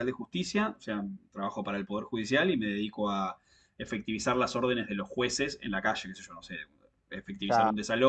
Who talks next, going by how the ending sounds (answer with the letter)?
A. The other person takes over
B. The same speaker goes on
B